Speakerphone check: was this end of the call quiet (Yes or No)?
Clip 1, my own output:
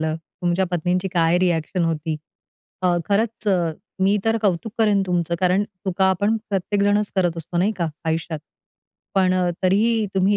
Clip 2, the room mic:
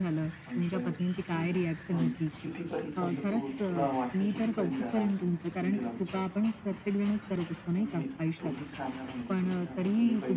No